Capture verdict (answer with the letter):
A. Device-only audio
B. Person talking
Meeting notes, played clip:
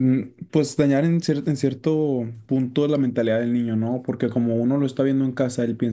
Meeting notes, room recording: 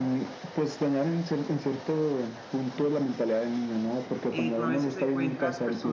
B